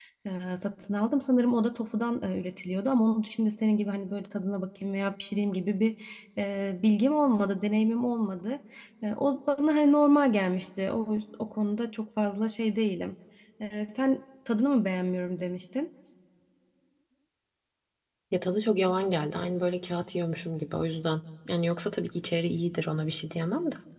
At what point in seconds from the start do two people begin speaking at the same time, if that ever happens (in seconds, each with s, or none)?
none